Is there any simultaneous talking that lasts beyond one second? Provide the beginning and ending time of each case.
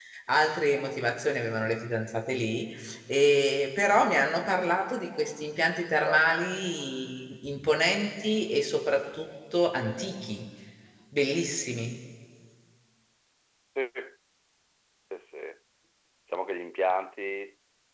none

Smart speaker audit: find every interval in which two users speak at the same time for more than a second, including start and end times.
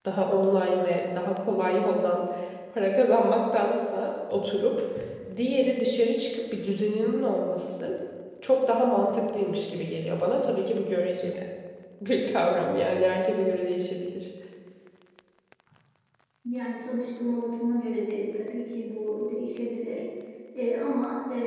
none

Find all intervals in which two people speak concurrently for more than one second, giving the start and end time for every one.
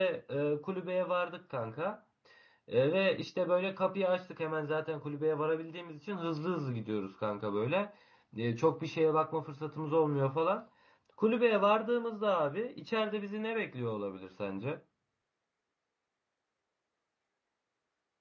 none

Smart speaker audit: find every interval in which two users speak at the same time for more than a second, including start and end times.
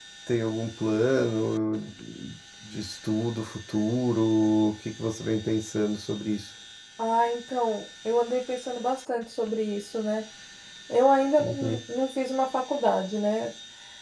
none

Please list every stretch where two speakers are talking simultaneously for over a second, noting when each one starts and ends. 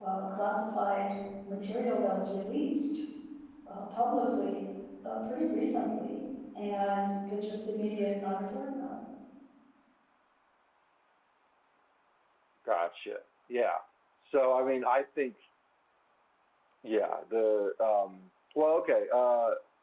none

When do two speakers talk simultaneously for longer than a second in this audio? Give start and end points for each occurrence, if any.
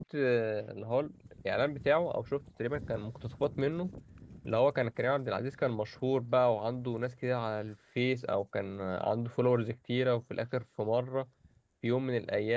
none

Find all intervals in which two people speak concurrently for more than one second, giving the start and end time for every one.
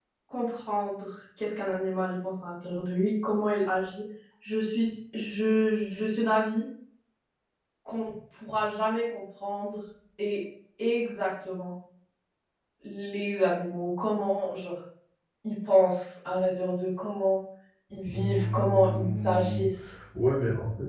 18.1-19.6

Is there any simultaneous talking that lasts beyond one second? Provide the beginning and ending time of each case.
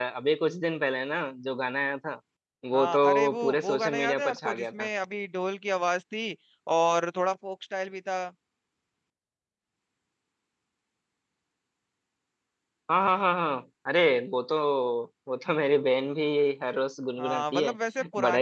2.7-4.9

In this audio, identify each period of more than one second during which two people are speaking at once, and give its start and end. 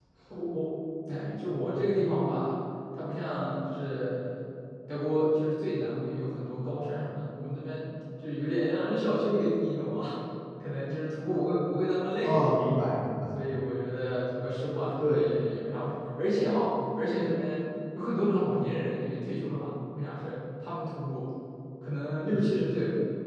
none

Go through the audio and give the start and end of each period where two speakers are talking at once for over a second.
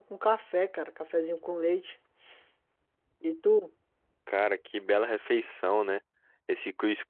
none

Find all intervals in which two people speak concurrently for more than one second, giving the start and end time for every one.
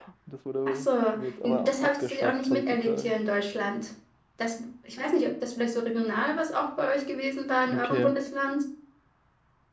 1.6-3.1

